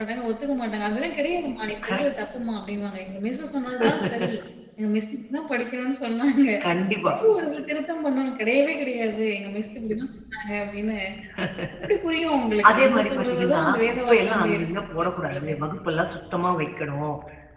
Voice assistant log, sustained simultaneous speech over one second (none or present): present